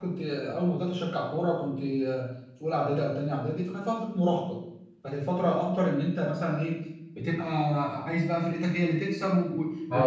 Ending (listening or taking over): taking over